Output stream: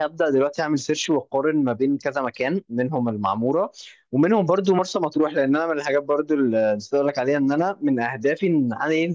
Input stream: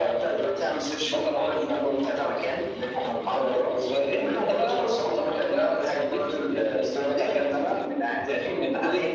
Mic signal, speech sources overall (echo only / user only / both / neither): both